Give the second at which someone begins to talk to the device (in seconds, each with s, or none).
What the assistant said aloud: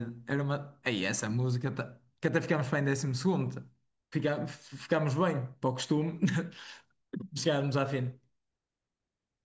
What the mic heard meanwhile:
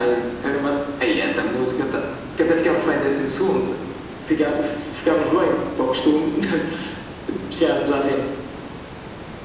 none